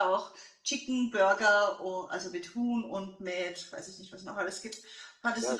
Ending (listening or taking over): listening